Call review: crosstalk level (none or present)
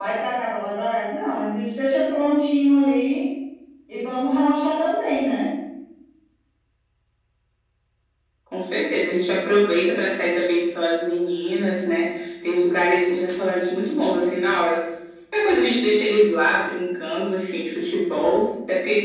none